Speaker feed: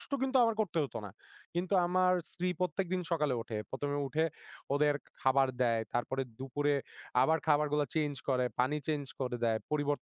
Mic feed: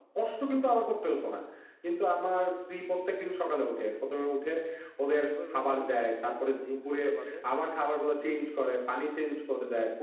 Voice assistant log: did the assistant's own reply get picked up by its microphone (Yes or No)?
Yes